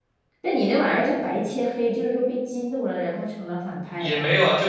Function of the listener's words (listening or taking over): taking over